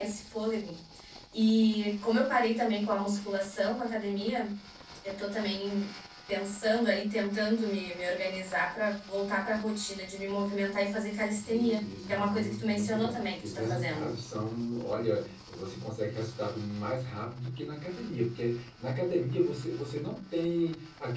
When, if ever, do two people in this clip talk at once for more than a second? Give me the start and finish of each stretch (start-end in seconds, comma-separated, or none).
11.4-14.1